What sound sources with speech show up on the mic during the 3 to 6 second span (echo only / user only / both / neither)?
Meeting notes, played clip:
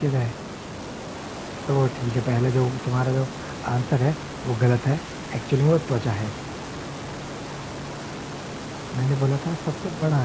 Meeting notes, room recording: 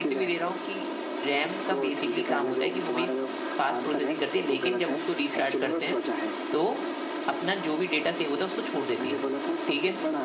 both